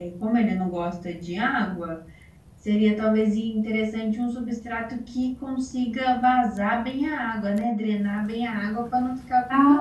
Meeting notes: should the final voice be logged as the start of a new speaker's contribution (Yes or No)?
Yes